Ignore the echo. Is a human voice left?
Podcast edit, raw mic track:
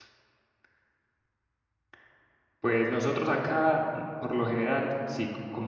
Yes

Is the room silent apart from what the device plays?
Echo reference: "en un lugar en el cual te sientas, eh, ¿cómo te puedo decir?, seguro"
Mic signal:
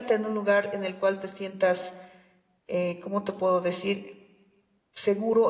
Yes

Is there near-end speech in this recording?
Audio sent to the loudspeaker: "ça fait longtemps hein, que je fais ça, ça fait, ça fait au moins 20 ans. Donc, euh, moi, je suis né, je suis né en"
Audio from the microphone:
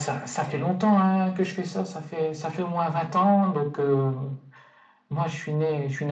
No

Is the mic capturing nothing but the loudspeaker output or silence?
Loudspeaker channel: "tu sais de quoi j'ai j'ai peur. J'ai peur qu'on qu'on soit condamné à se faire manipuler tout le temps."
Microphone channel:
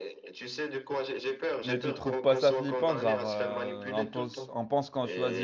No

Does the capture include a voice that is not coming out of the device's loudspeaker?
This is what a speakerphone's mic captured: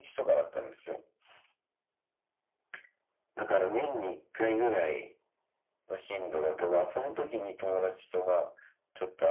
No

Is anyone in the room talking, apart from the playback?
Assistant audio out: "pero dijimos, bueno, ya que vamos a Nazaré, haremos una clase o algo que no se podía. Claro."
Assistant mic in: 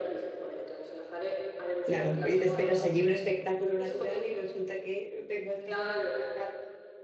Yes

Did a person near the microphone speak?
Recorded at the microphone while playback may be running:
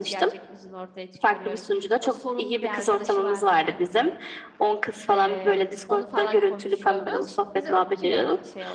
Yes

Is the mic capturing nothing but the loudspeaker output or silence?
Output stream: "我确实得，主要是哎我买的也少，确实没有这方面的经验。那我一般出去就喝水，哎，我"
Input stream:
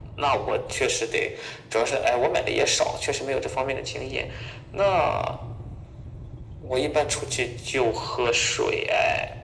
Yes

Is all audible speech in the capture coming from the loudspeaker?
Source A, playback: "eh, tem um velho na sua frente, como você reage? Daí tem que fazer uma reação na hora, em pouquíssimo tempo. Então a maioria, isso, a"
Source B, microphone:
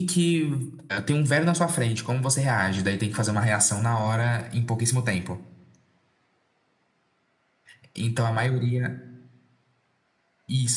Yes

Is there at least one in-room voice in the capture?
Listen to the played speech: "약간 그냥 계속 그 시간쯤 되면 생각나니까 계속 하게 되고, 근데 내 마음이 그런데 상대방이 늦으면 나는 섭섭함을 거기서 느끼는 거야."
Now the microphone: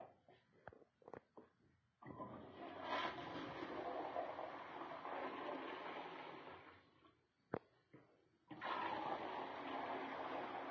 No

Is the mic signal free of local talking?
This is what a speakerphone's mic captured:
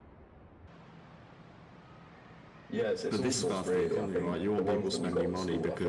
No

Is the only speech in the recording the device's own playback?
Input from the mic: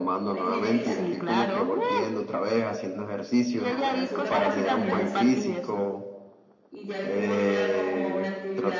No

